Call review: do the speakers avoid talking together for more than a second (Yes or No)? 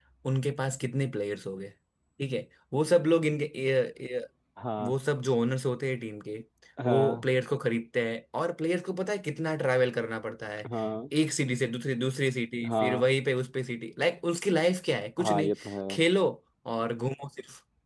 Yes